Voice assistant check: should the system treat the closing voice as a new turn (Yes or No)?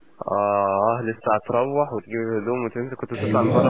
Yes